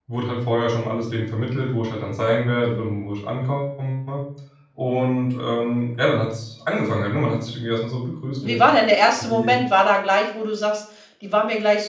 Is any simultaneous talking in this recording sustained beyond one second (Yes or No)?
No